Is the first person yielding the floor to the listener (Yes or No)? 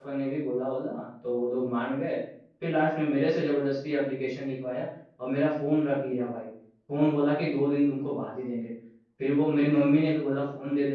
No